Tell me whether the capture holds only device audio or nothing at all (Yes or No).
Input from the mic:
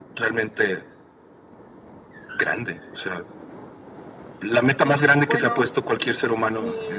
No